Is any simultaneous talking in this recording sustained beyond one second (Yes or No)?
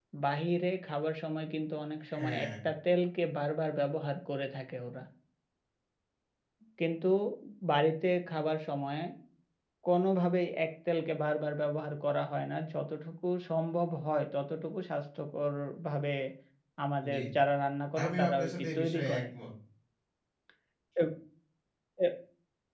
Yes